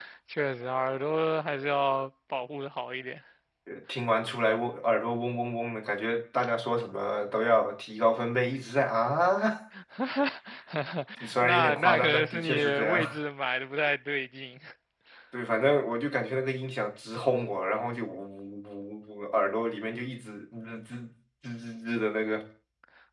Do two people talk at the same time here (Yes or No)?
Yes